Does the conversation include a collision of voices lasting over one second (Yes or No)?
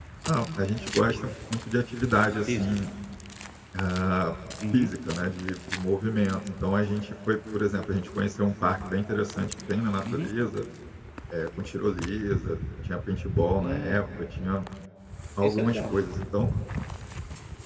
No